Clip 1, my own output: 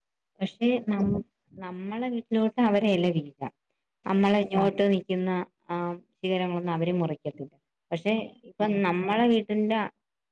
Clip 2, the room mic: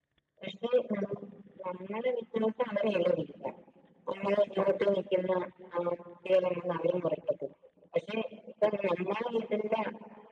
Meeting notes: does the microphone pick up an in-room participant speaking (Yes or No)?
No